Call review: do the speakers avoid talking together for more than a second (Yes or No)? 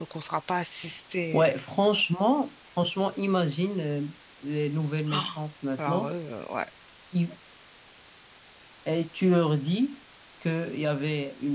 Yes